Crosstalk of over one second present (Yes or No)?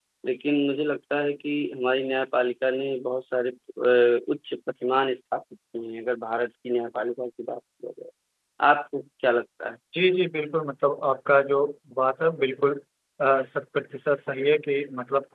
No